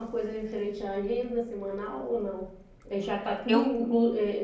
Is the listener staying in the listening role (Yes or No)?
Yes